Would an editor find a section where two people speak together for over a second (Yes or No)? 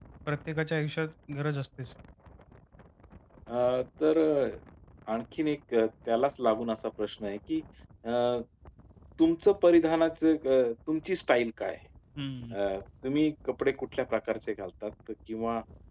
No